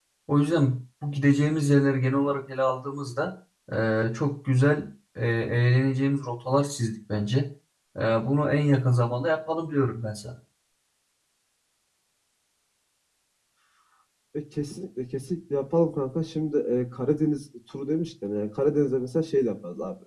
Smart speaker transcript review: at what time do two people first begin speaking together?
none

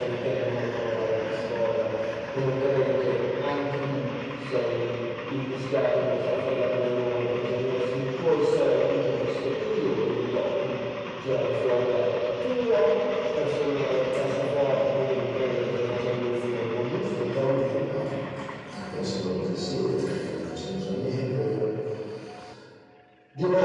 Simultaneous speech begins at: none

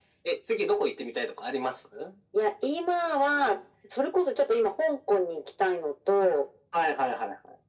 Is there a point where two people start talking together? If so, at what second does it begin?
none

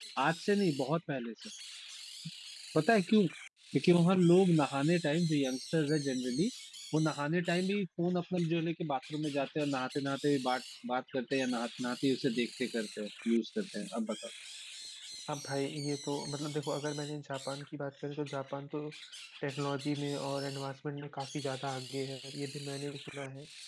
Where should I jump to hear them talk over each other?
none

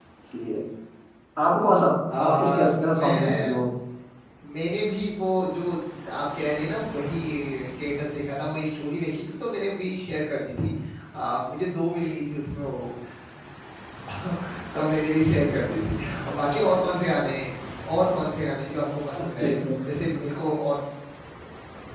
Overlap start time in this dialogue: 2.2 s

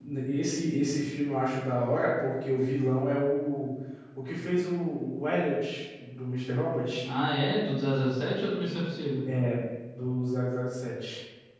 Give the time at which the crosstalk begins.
none

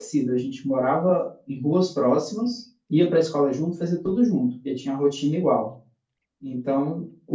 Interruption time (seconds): none

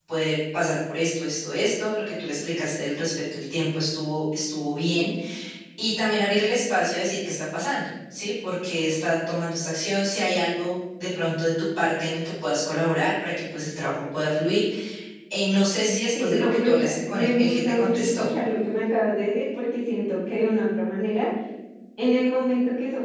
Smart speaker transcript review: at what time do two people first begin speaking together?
16.2 s

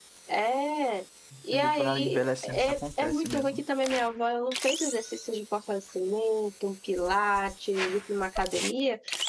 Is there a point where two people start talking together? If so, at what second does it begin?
1.3 s

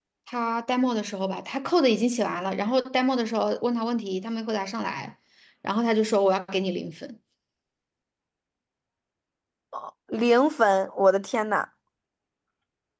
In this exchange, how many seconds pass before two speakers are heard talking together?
none

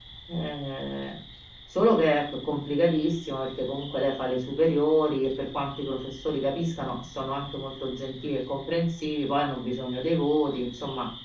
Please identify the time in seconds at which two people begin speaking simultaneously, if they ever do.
none

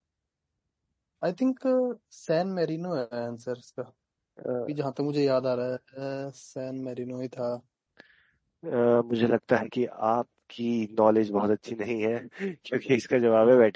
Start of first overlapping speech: none

